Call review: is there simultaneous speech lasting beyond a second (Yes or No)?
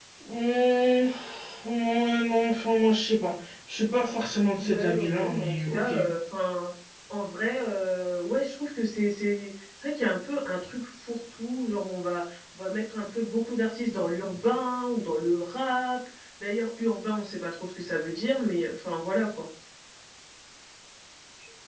Yes